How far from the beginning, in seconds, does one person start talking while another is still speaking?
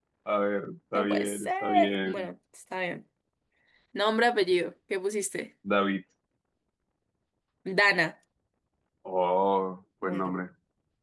0.9 s

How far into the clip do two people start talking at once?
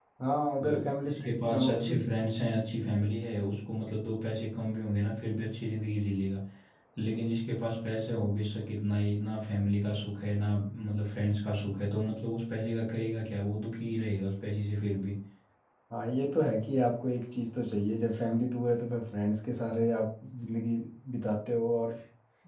0.6 s

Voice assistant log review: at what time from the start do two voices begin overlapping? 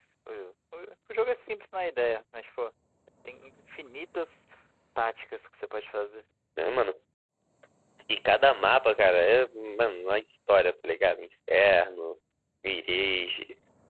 none

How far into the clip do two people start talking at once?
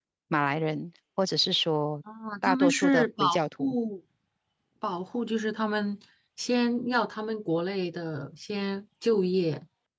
2.4 s

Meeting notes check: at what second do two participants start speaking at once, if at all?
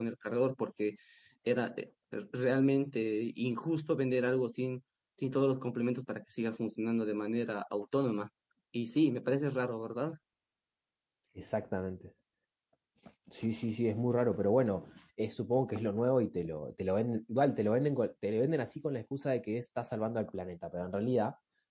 none

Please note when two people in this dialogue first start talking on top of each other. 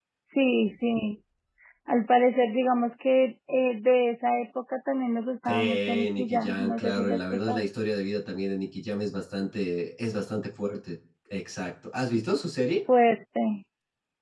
5.5 s

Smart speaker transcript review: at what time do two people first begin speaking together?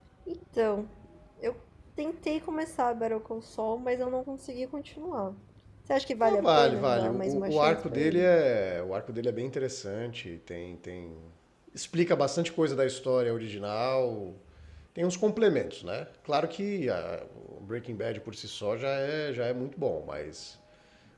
6.2 s

